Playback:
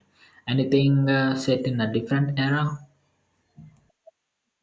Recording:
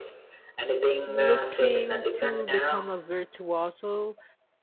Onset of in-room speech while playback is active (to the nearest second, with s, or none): 1 s